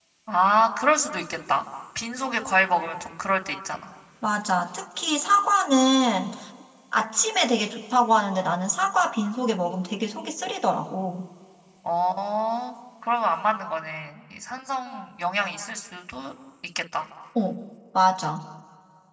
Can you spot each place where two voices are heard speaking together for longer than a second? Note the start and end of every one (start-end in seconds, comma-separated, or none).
none